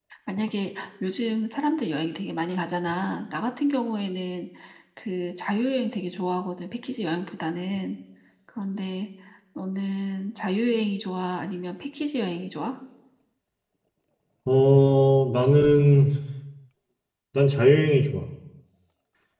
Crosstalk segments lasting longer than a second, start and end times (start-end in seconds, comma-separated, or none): none